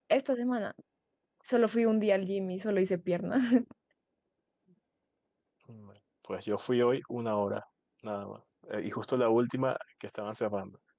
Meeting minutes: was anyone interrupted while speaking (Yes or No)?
No